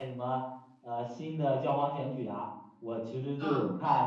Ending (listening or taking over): listening